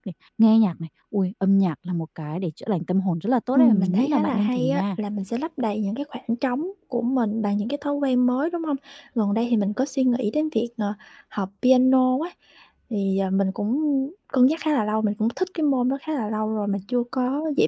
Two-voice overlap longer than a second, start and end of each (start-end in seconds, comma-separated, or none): 3.5-4.8